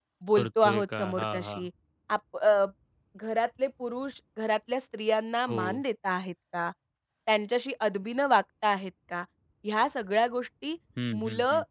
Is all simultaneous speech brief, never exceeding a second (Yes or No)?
No